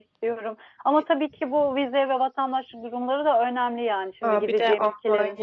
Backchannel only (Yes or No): No